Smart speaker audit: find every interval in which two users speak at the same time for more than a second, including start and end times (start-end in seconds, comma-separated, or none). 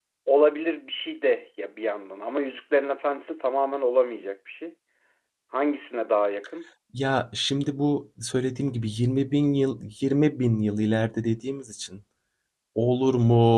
none